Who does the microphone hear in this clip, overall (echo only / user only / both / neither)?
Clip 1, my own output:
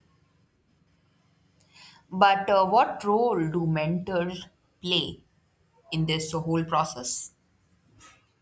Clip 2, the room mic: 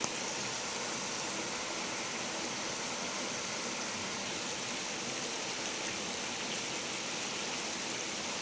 neither